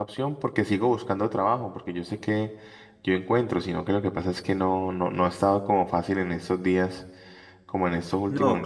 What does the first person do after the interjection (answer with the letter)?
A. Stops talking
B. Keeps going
B